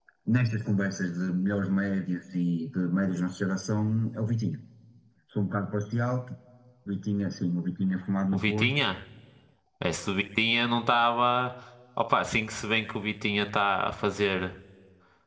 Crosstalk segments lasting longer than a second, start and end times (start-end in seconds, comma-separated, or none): none